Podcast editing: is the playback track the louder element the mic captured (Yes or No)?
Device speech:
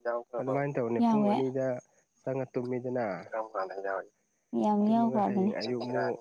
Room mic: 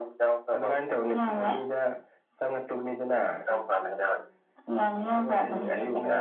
Yes